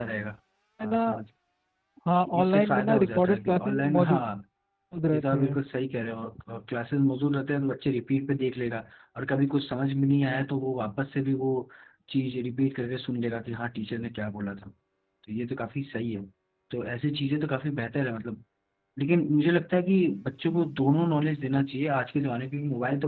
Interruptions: present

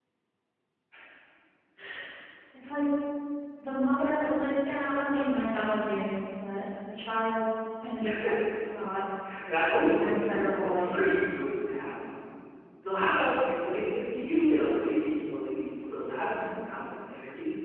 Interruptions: present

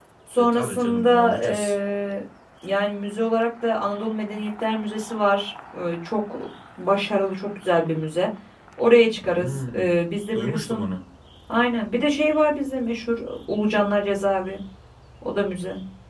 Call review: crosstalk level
present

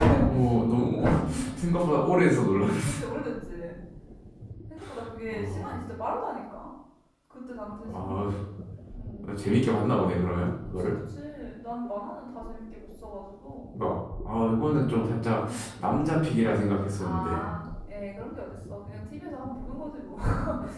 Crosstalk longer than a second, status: none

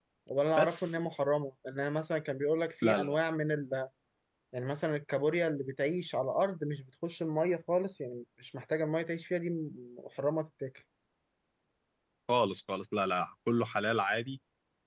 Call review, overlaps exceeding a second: none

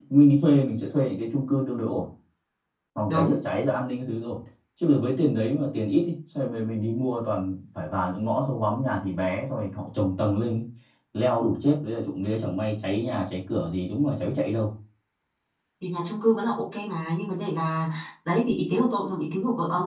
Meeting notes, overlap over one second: none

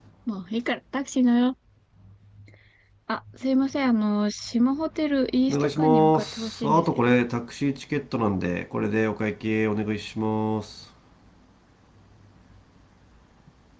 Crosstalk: present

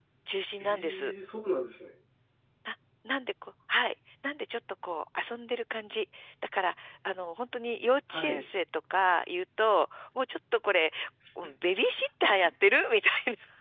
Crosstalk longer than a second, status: none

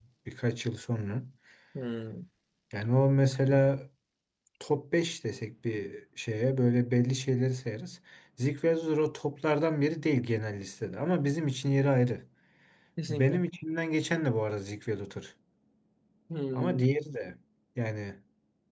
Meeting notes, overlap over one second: none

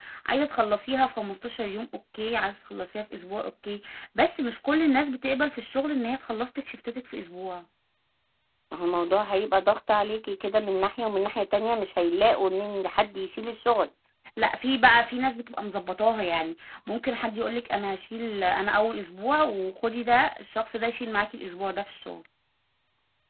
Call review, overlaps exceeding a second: none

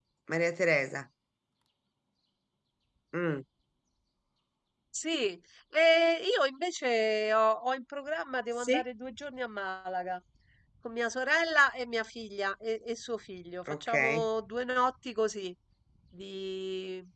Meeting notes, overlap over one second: none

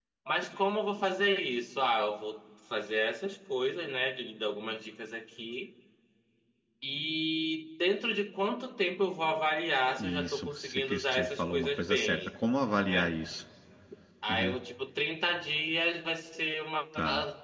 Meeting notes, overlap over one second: present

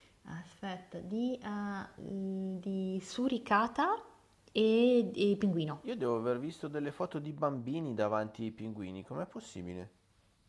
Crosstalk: none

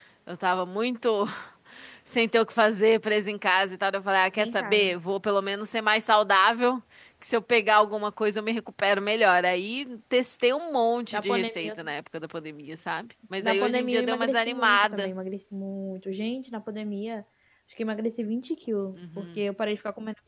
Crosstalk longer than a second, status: present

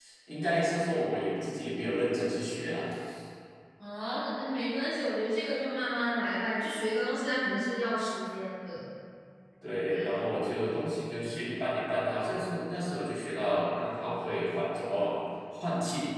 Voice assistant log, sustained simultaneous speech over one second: none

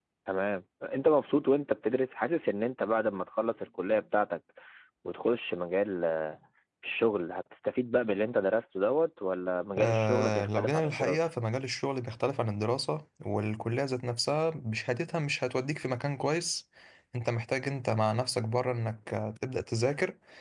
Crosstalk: present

